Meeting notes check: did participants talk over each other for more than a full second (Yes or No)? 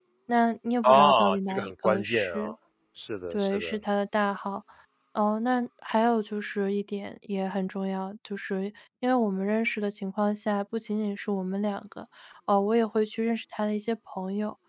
Yes